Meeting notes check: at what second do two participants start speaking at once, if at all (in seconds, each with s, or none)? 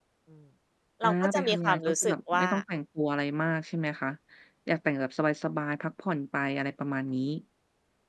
1.0 s